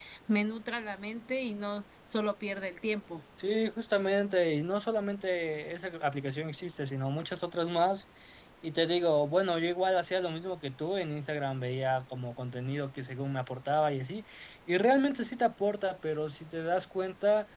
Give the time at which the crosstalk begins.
none

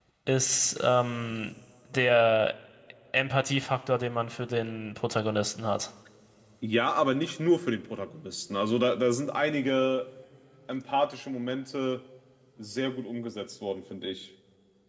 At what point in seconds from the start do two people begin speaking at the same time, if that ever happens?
none

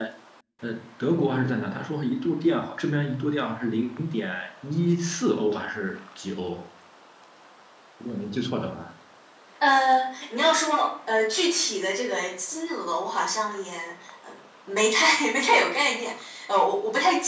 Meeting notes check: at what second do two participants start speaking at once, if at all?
none

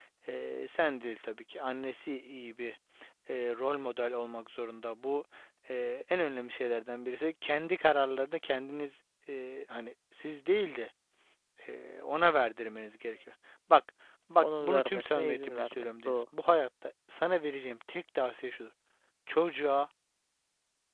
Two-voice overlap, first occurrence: 14.4 s

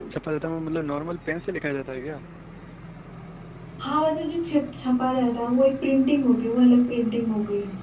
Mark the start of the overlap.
none

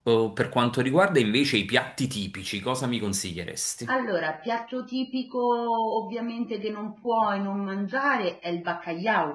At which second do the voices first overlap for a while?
none

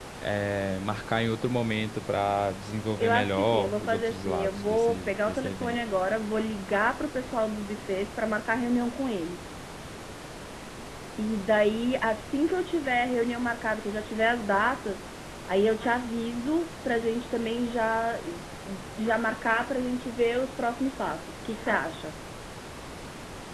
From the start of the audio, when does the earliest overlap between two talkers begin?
3.0 s

